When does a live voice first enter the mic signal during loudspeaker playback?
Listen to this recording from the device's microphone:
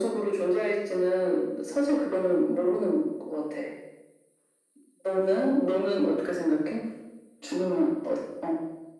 none

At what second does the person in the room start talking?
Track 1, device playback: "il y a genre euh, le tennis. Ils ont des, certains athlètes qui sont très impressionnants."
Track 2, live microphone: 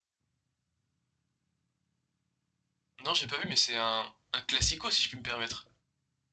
3.0 s

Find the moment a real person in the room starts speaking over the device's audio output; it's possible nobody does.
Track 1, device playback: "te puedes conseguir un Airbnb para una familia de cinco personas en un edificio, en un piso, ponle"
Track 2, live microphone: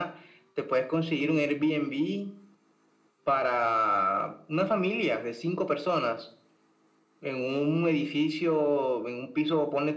none

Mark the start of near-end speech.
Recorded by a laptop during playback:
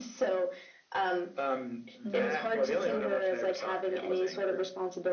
2.0 s

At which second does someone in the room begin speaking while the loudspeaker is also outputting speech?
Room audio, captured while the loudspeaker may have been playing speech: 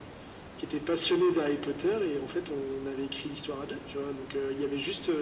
none

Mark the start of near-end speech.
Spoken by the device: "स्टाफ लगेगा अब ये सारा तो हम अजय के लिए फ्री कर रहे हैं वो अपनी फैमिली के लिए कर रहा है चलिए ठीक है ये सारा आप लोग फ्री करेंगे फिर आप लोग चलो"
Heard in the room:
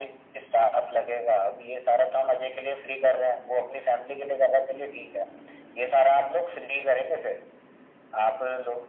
none

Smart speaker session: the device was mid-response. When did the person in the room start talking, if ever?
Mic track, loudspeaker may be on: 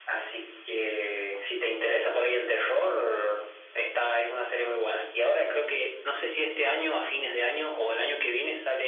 none

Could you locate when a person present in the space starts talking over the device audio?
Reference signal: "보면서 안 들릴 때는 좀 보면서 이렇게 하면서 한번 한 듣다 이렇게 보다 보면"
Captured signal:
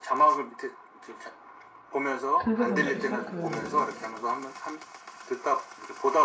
2.4 s

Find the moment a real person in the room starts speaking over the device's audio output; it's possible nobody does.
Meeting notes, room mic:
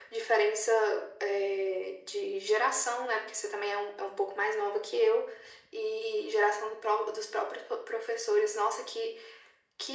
none

